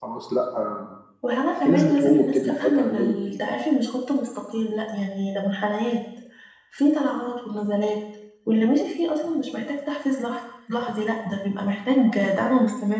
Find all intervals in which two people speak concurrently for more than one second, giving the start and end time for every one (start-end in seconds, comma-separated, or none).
1.6-3.4